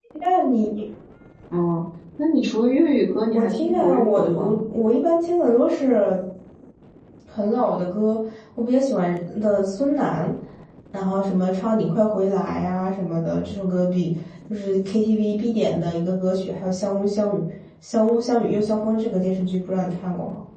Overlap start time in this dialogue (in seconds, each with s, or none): 3.3 s